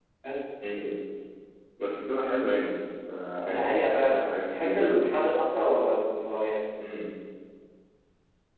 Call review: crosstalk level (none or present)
present